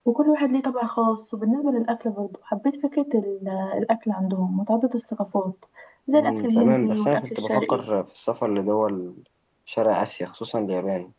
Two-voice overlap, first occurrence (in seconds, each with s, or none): 6.1 s